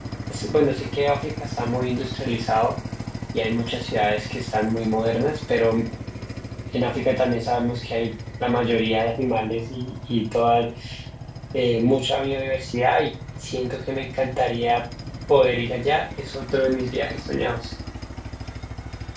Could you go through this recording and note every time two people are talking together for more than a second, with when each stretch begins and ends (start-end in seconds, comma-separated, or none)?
none